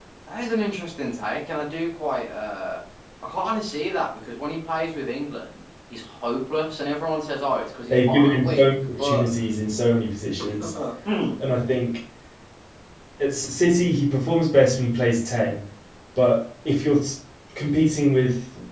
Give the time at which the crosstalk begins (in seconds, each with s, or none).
7.9 s